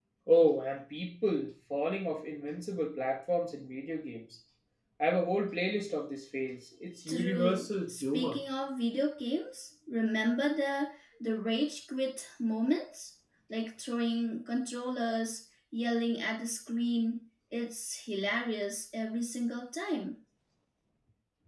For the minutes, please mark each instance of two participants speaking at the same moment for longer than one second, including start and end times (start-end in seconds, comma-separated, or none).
7.1-8.4